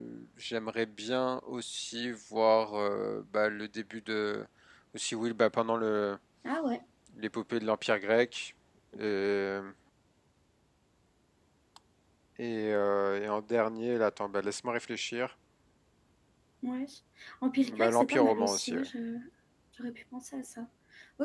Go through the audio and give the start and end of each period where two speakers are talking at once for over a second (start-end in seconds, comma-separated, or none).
17.6-18.9